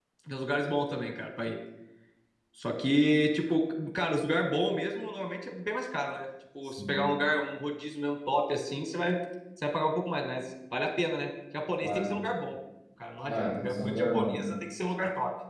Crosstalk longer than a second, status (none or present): present